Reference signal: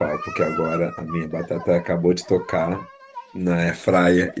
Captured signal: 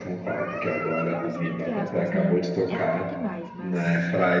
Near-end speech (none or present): present